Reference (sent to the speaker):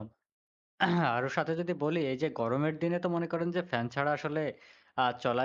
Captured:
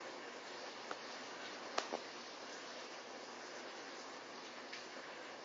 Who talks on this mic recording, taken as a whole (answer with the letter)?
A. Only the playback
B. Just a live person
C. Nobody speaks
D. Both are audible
C